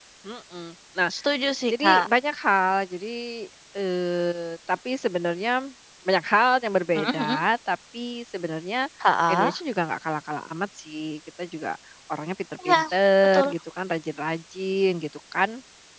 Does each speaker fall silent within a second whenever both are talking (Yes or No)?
Yes